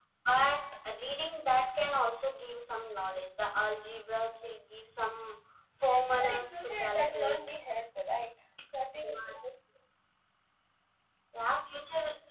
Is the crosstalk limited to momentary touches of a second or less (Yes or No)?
No